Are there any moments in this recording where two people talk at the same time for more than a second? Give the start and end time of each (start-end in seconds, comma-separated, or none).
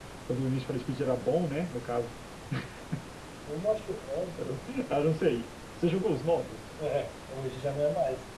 none